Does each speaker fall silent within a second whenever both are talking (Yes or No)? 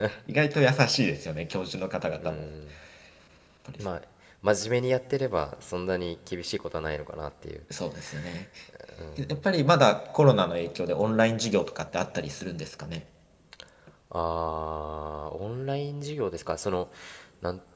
Yes